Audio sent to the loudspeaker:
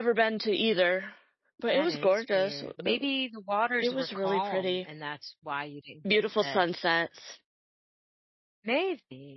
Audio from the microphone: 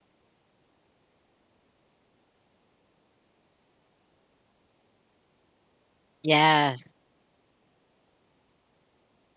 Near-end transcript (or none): Yes.